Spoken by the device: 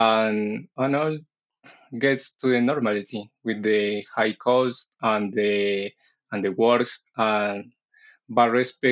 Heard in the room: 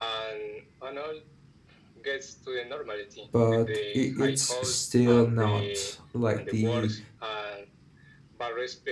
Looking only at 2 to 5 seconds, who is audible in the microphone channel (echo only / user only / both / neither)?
both